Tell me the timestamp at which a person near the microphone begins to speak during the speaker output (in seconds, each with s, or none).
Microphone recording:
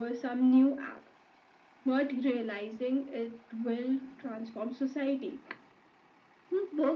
none